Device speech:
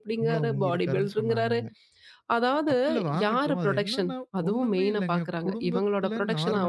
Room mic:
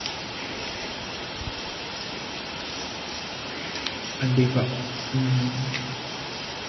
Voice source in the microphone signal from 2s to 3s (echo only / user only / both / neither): neither